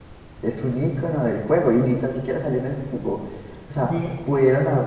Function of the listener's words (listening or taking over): listening